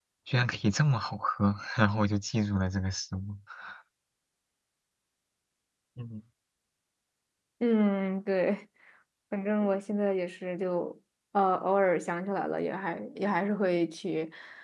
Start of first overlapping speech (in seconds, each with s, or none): none